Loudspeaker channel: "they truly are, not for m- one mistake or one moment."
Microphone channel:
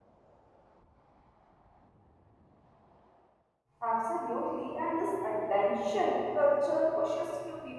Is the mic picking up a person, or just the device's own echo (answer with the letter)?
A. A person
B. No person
A